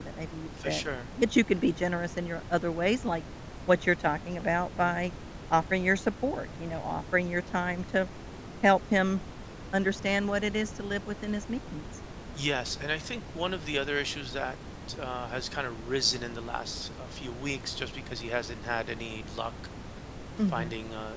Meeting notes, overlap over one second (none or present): none